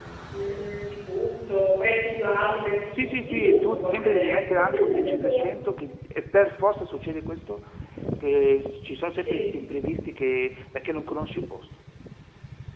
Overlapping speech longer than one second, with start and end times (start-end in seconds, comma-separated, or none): 2.9-5.4